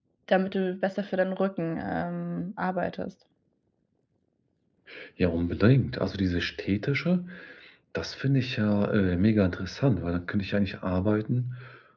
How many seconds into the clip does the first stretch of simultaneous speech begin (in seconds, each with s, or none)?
none